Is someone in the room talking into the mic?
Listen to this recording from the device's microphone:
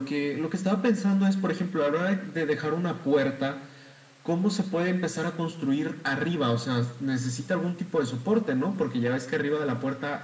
No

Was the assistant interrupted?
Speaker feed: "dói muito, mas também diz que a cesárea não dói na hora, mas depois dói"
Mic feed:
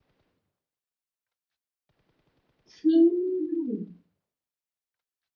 Yes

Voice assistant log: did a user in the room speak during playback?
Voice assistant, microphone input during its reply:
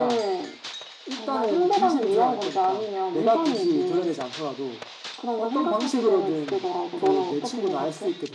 No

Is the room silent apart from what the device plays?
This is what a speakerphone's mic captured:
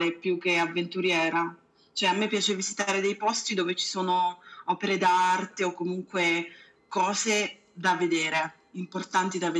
Yes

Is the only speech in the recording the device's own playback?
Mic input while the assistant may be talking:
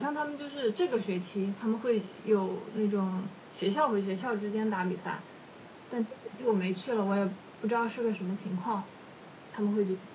Yes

